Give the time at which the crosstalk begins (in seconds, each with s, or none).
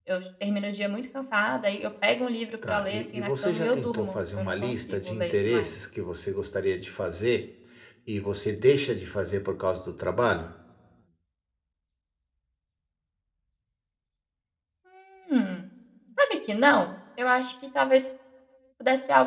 2.6 s